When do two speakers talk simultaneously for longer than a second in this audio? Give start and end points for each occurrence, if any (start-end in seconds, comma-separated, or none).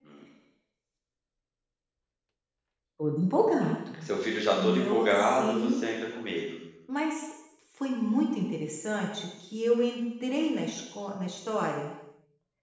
4.6-5.8